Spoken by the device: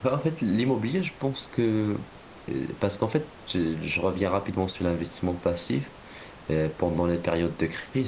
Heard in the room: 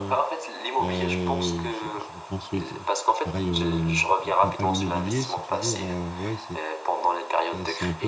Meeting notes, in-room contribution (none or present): present